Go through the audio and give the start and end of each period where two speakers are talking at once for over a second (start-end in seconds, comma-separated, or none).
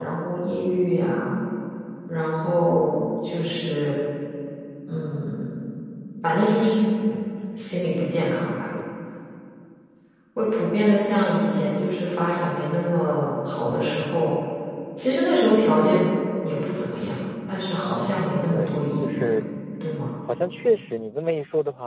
17.8-19.3